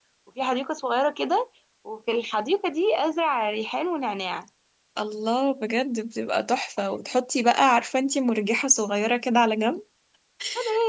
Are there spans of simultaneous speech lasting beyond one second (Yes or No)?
No